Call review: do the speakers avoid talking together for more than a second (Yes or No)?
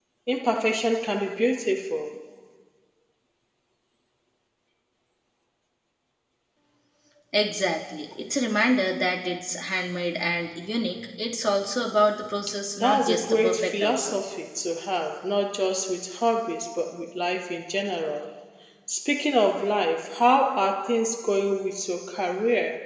No